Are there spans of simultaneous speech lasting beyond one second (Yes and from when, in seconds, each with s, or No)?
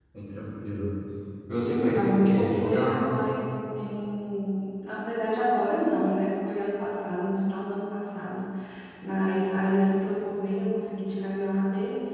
Yes, from 1.6 s